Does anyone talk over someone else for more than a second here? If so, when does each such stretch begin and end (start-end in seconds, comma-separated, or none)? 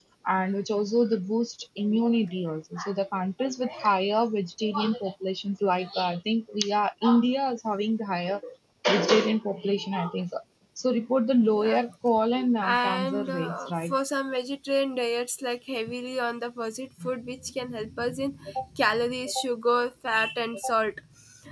12.6-13.9